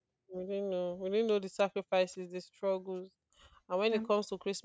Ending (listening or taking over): listening